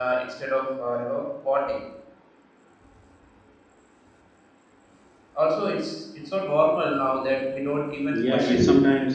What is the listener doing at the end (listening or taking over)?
taking over